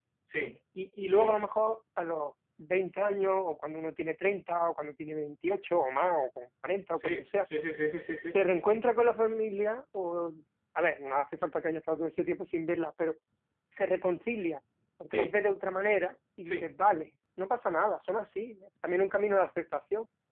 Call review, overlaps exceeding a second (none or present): none